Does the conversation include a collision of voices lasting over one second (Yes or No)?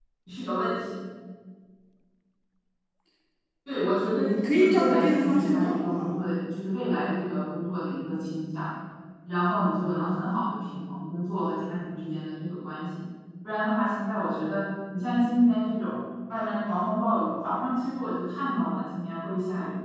Yes